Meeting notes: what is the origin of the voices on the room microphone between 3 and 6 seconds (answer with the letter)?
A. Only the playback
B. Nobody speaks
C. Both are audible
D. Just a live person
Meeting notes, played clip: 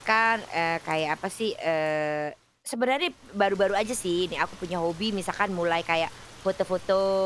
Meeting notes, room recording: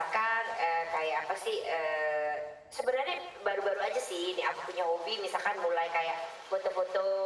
A